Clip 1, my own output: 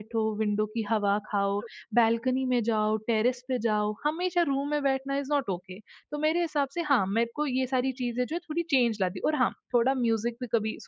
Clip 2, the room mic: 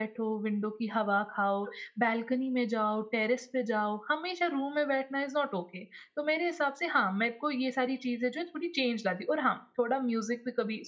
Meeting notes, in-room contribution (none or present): none